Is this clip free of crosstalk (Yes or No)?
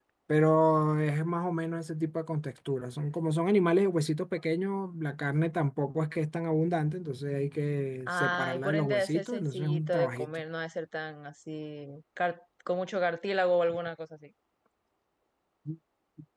No